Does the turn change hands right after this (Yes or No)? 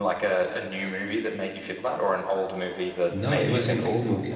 Yes